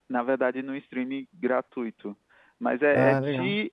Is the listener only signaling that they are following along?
Yes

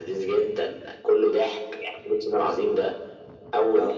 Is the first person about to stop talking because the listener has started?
No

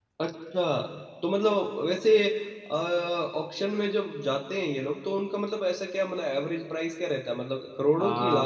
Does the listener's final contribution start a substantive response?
Yes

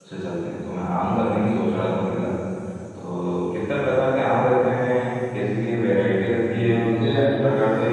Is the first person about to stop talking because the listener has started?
No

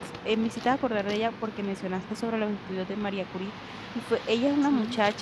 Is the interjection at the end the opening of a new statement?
No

